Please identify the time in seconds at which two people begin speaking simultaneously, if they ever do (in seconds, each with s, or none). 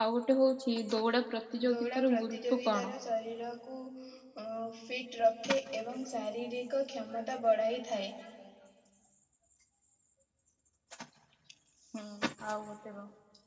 1.6 s